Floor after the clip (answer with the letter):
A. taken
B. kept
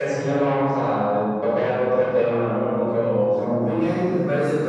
A